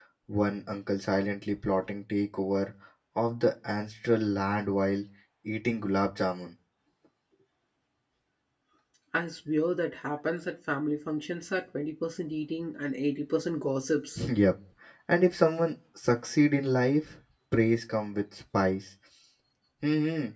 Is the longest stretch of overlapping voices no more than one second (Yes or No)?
Yes